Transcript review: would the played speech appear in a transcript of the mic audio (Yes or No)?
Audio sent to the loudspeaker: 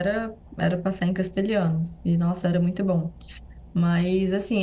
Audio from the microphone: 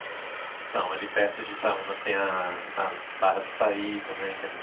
No